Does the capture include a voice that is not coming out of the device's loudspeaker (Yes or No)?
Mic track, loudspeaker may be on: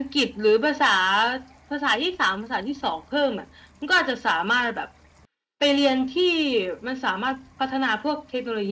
No